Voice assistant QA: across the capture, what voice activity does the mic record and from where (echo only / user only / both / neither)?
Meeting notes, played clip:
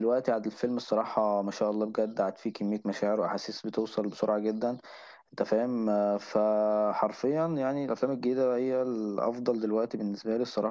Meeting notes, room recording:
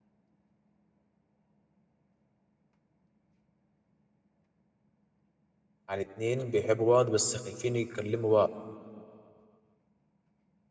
user only